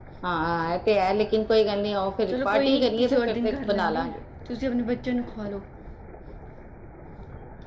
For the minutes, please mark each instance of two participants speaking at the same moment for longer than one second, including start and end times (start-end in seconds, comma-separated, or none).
2.3-4.1